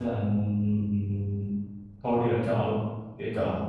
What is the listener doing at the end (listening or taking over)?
listening